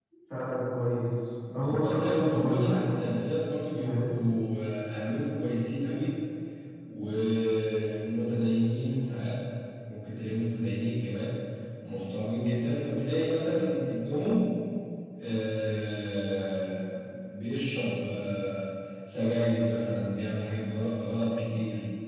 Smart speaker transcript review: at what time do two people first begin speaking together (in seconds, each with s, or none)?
1.5 s